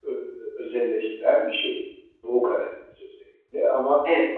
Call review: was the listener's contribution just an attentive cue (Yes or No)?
Yes